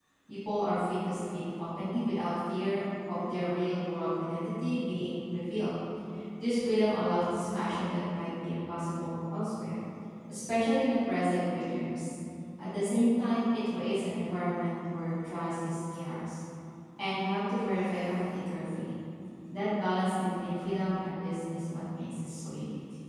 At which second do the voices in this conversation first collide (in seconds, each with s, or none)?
none